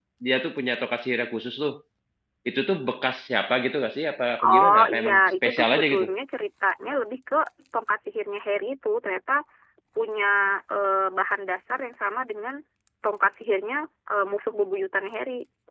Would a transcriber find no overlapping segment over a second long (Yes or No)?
No